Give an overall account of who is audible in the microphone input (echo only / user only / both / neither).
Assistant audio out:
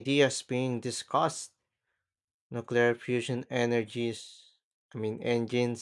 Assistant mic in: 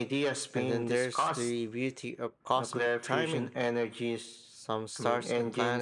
both